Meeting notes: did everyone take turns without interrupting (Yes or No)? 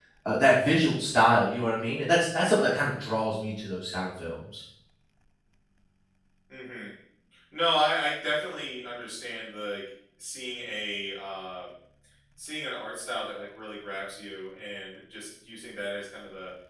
Yes